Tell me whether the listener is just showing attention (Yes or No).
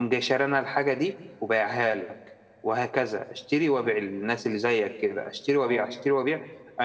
Yes